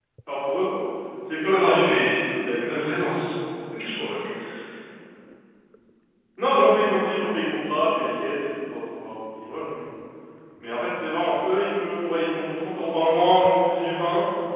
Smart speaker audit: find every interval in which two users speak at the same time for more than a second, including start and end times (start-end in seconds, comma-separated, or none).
1.4-2.8